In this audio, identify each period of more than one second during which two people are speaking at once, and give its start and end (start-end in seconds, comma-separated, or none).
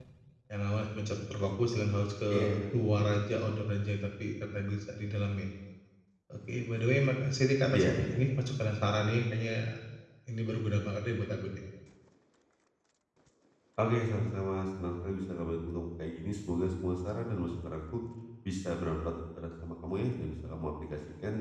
none